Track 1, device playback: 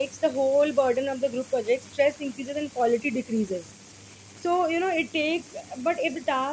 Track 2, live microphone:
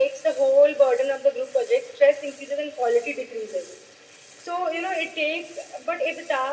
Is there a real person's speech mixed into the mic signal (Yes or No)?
No